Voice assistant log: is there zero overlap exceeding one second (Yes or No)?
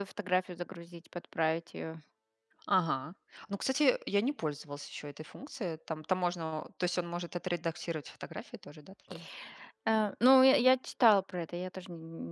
Yes